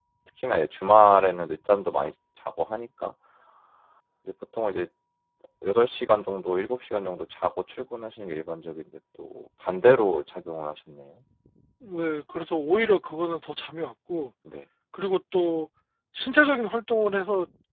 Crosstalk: none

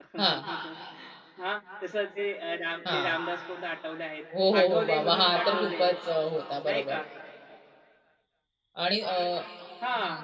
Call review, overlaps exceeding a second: present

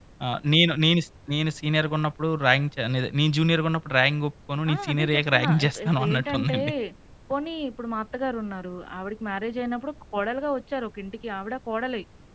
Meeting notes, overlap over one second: present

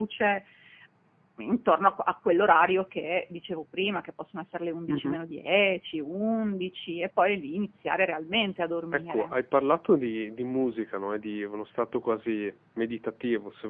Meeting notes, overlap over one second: none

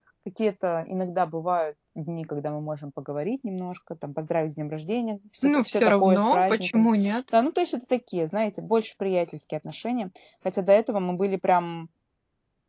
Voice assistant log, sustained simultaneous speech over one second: present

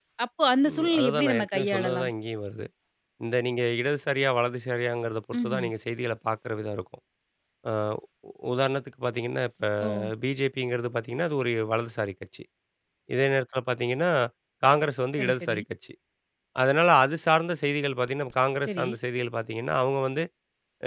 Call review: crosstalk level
present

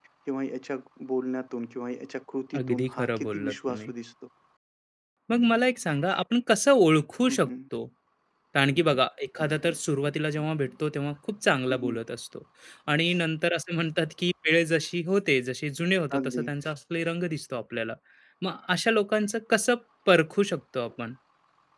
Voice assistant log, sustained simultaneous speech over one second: present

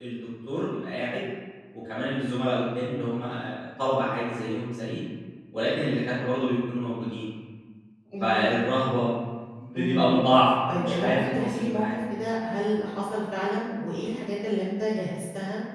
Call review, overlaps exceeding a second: present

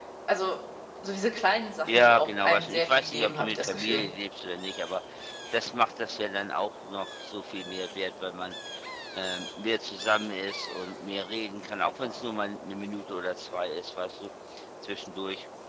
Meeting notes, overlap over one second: present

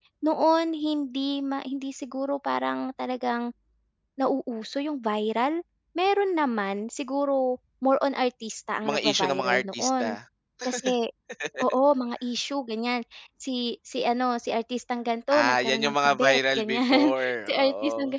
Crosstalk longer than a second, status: present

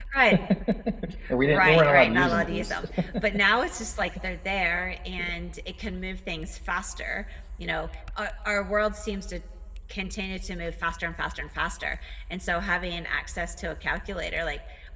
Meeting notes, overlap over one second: present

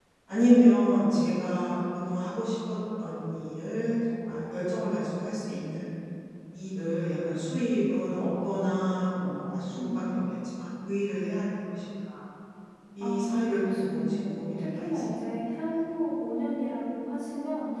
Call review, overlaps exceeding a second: present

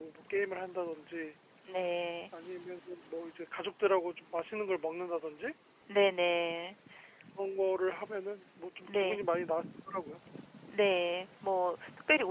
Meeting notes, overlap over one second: none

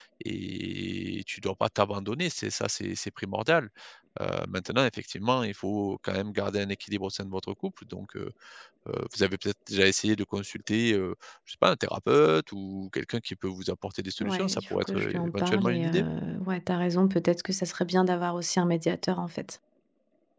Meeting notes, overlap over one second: present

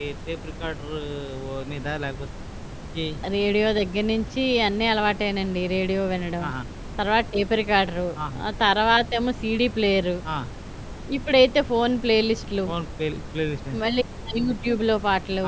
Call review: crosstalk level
none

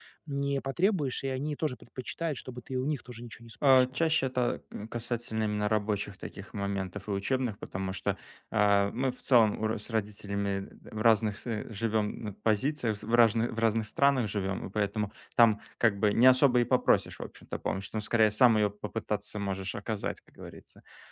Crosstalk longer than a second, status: none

